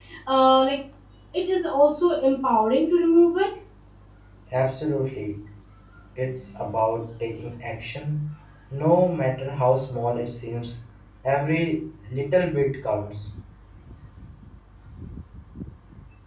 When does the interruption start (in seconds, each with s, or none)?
none